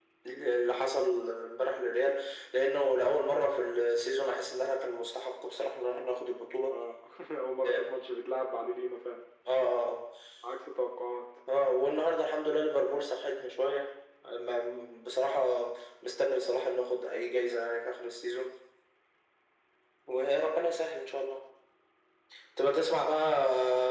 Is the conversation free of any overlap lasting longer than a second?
Yes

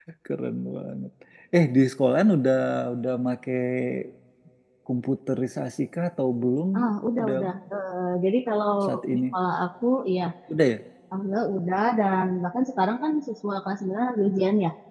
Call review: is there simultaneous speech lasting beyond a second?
No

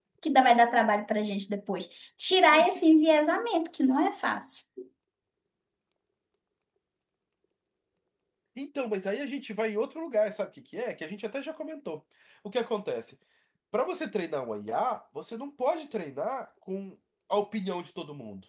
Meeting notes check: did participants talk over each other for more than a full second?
No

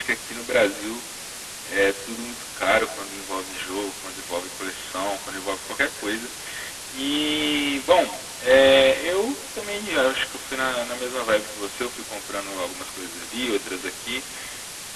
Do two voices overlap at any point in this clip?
No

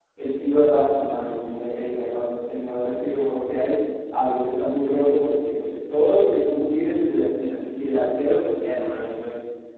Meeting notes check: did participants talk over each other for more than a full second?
No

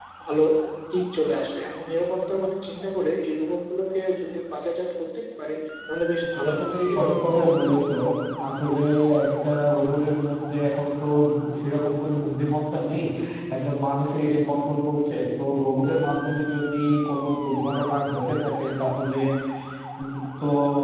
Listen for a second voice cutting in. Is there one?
Yes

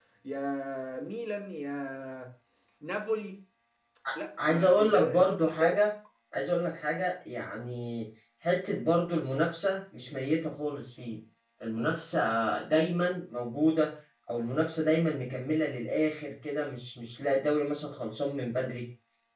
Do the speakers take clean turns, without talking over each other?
No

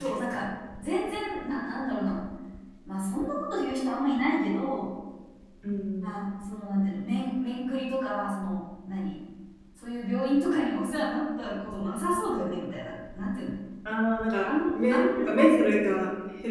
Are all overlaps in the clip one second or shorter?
No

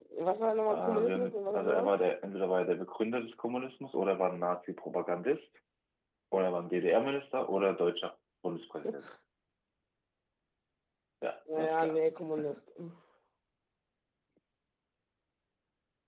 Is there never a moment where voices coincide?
No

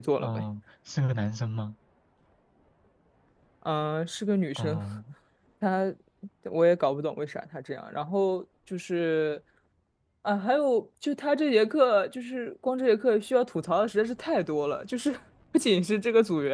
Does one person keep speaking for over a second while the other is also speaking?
No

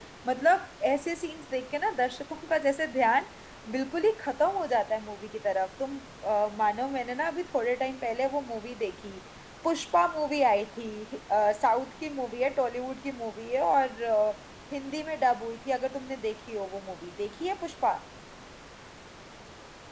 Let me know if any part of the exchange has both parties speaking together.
No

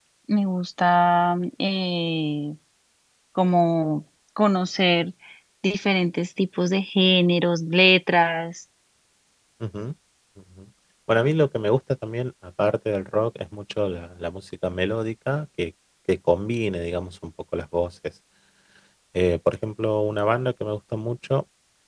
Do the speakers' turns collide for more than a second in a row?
No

